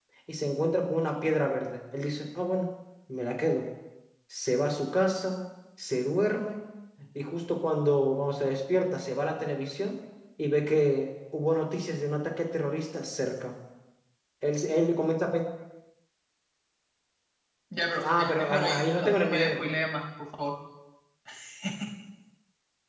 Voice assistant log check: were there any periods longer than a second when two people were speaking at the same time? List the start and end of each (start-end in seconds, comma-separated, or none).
18.0-19.6